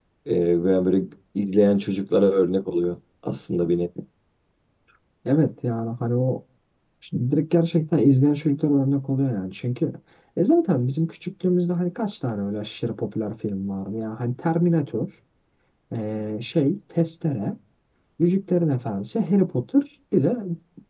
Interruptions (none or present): none